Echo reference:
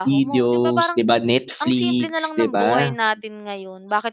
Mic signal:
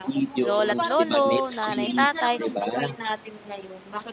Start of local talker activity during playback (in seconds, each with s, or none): 0.4 s